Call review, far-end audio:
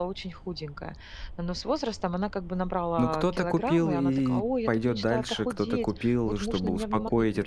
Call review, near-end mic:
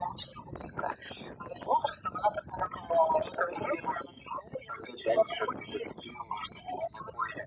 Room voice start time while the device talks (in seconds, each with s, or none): none